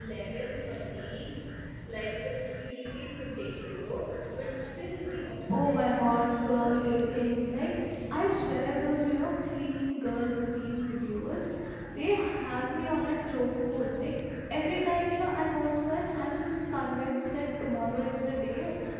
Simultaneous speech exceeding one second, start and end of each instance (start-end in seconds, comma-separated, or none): 5.5-7.2